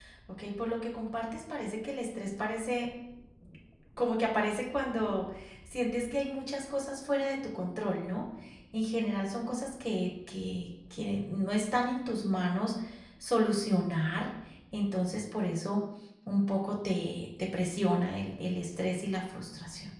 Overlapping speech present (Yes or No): No